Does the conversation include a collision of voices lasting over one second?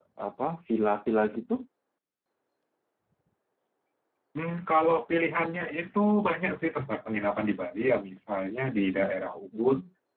No

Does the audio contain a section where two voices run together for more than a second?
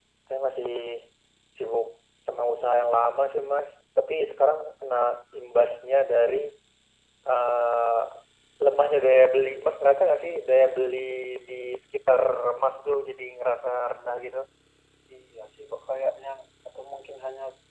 No

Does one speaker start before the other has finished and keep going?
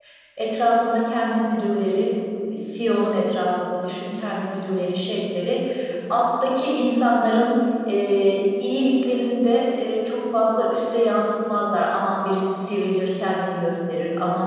No

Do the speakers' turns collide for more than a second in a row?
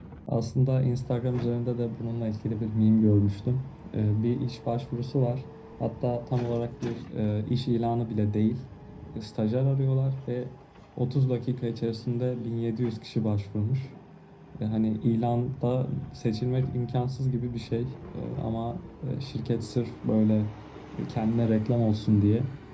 No

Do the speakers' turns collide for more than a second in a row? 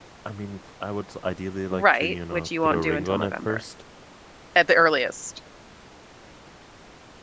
Yes, from 1.7 s

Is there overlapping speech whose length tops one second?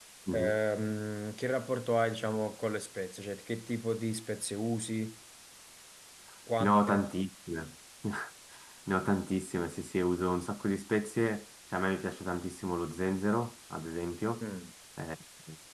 No

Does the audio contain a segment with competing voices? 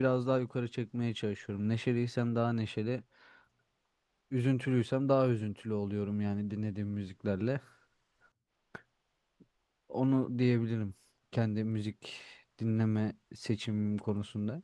No

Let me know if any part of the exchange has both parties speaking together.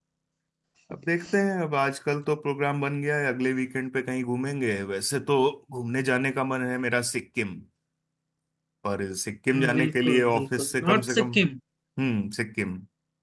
Yes, from 9.5 s

